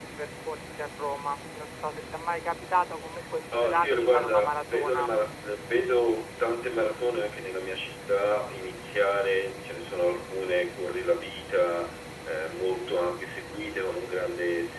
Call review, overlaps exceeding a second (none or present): present